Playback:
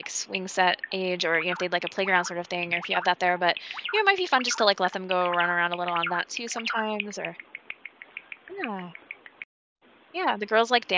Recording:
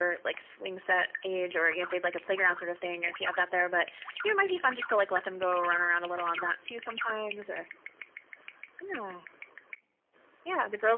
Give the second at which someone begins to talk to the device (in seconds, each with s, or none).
none